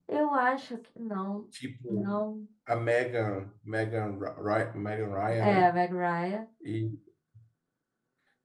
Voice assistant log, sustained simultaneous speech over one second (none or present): none